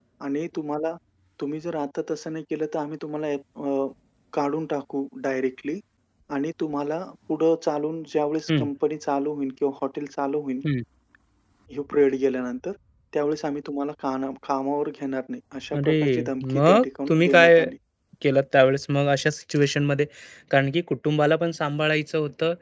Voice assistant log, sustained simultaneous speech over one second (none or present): present